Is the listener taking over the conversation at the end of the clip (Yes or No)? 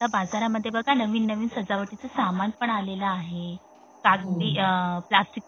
No